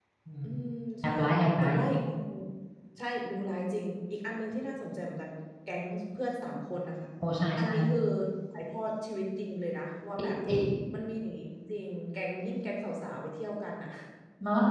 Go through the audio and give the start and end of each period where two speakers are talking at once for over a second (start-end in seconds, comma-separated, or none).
none